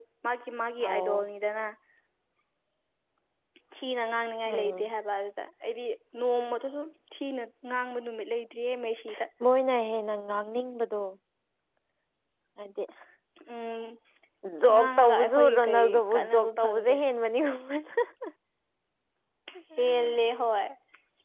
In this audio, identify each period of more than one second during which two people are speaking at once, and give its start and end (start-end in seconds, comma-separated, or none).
14.7-17.0